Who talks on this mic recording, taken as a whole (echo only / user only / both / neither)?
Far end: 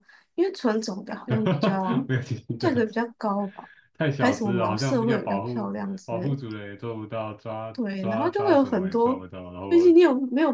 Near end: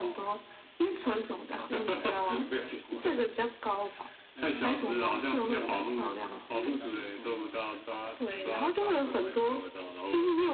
both